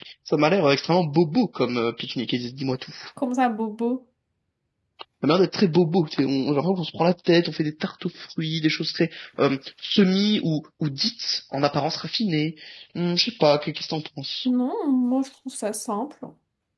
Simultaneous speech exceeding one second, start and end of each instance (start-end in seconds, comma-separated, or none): none